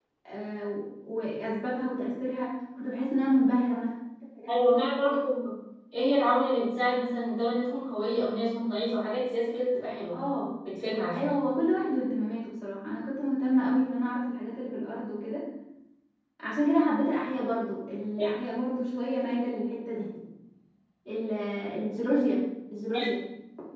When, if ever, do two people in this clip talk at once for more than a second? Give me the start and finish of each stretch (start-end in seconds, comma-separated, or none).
none